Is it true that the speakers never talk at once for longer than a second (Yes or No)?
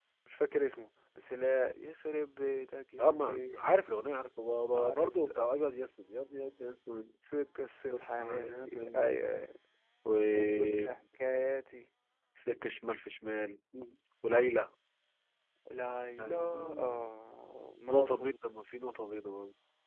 No